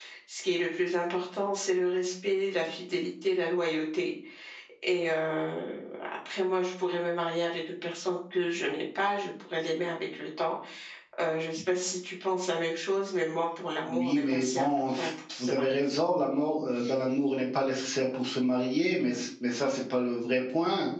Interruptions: present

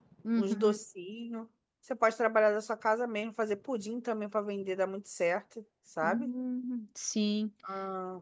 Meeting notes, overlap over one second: none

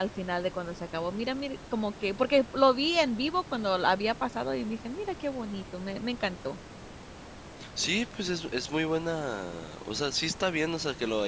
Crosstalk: none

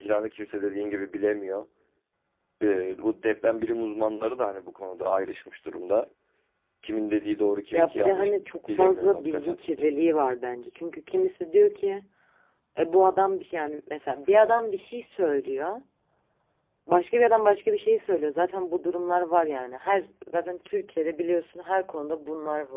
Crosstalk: present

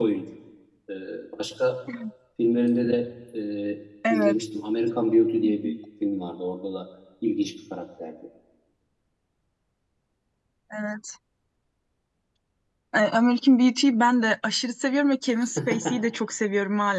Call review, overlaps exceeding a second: none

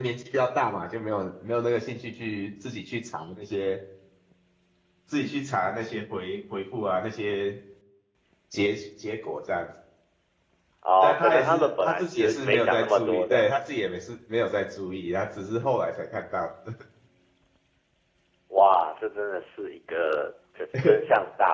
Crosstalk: present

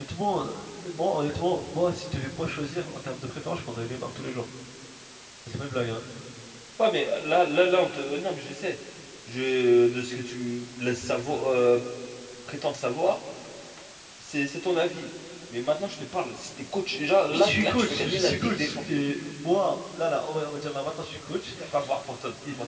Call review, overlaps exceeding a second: present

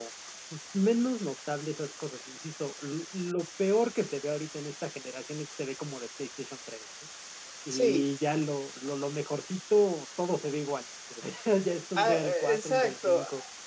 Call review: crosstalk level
present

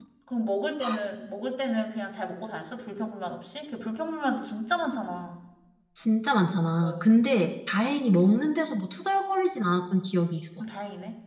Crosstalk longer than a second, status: none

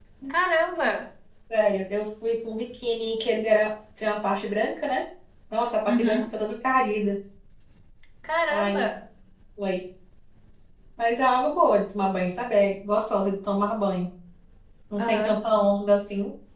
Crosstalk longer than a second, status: none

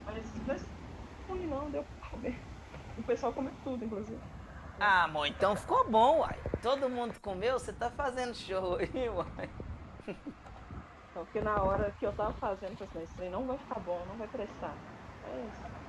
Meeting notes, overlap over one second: none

